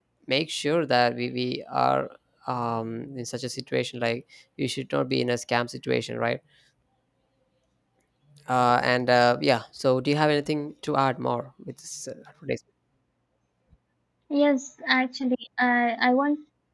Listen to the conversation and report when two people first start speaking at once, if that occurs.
none

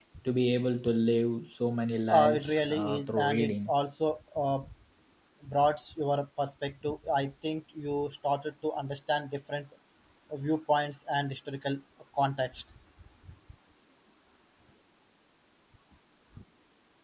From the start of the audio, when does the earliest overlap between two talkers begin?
2.1 s

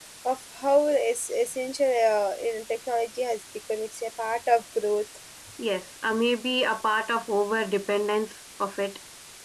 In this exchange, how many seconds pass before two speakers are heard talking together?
none

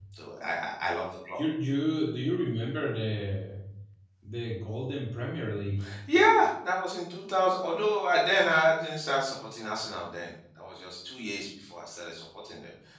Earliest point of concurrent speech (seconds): none

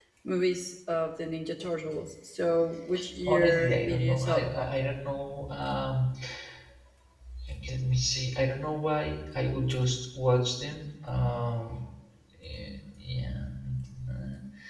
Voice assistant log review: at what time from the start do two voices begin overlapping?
3.2 s

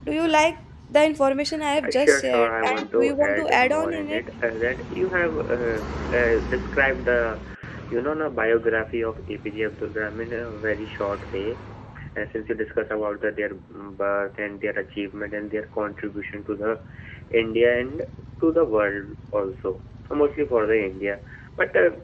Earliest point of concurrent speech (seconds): 1.8 s

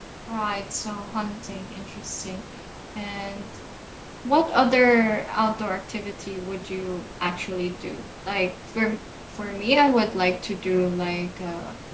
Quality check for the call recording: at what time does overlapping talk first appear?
none

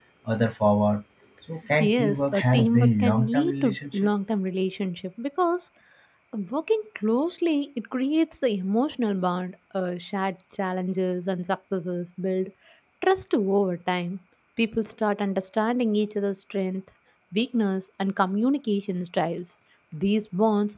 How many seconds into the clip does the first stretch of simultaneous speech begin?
1.8 s

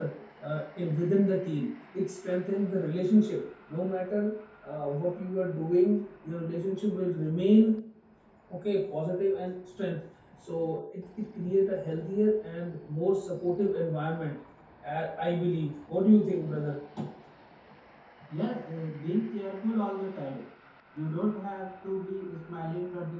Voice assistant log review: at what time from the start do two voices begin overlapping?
none

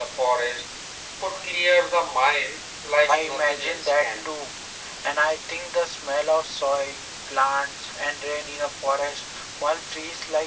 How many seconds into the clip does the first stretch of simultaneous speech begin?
3.1 s

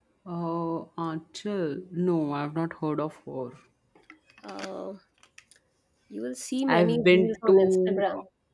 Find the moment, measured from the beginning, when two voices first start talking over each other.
6.7 s

